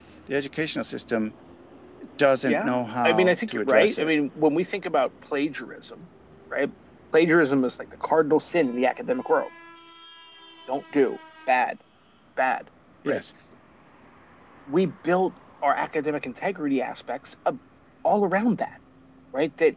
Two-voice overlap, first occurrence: 2.4 s

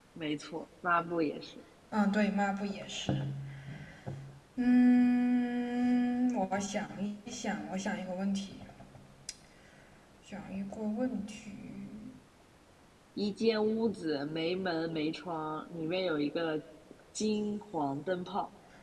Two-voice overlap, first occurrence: none

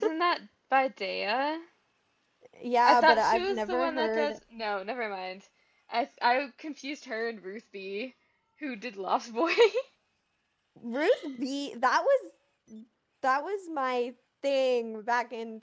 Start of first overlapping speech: 2.8 s

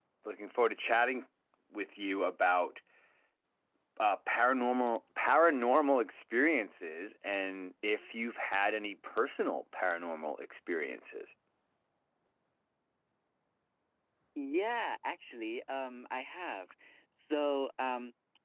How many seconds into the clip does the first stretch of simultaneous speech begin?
none

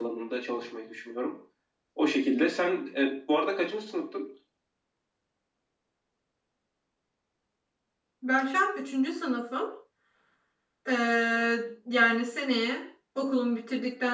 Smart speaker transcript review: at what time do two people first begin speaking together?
none

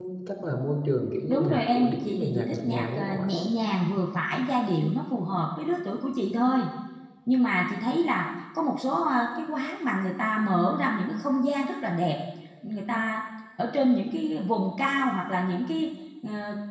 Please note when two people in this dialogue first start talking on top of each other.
1.3 s

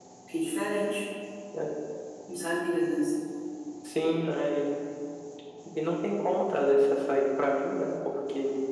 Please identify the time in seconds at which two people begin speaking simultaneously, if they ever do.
none

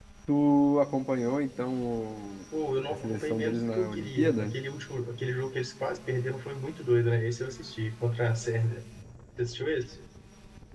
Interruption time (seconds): 2.9 s

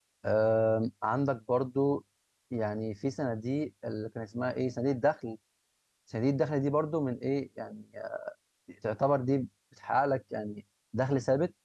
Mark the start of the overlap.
none

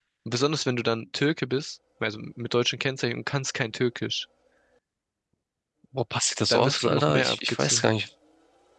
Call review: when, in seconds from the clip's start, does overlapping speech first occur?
6.5 s

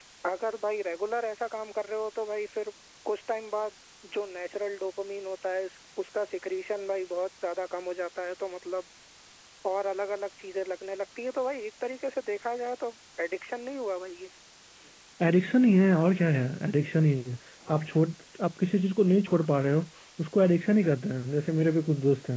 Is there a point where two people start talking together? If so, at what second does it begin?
none

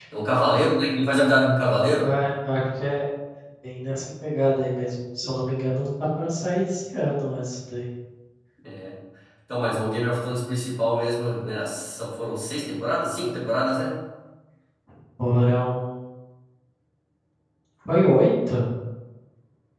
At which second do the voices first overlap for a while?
none

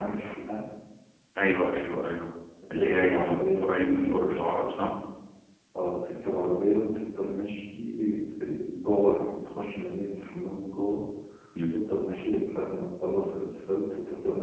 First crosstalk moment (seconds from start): 2.8 s

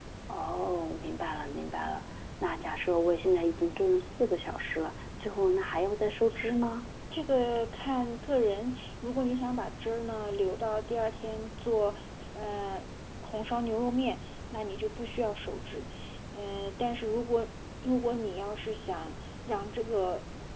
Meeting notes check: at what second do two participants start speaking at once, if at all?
none

